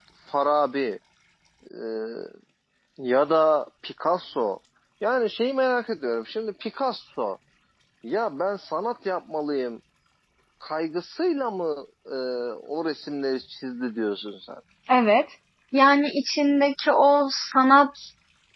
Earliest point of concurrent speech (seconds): none

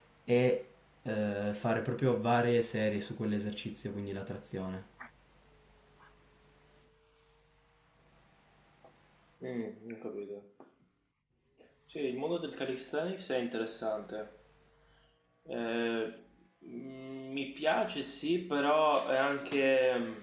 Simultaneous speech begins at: none

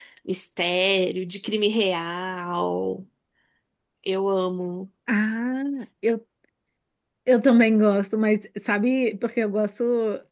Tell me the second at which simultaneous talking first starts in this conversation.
none

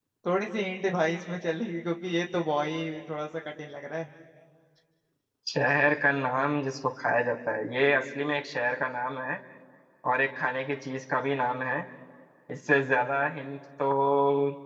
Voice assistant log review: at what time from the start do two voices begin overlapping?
none

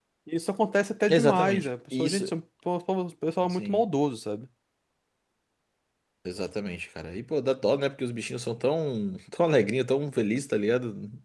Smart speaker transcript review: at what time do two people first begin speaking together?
1 s

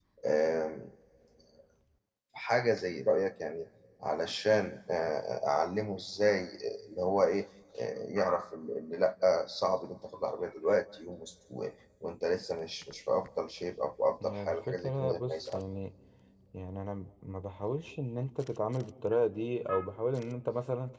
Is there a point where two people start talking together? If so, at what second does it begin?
14 s

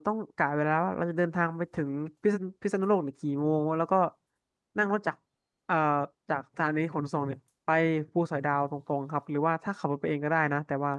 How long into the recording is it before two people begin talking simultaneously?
none

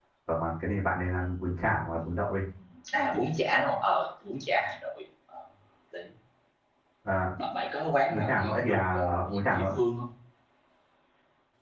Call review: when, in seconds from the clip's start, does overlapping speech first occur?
8 s

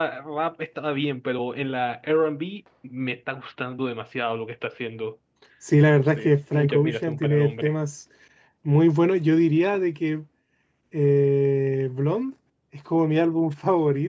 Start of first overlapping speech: 6 s

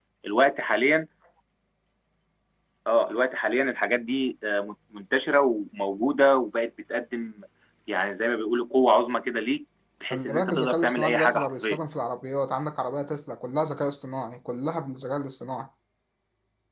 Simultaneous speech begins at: 10 s

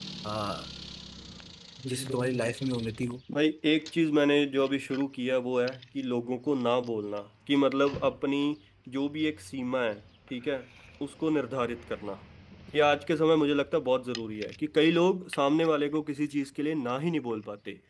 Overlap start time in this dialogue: none

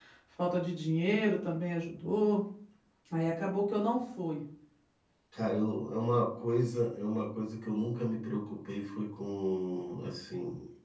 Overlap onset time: none

